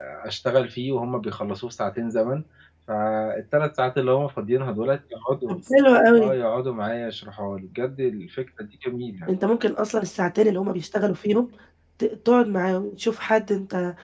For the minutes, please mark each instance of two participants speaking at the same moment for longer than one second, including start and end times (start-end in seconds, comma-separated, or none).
none